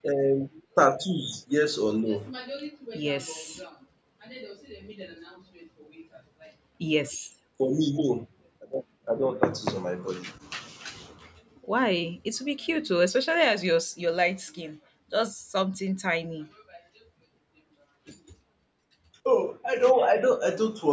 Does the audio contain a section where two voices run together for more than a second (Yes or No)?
No